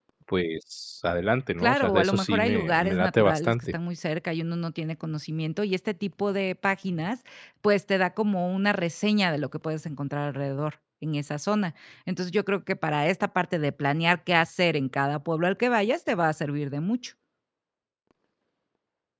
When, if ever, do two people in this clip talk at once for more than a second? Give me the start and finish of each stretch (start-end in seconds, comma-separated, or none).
1.6-3.7